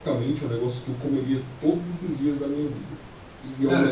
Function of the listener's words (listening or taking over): listening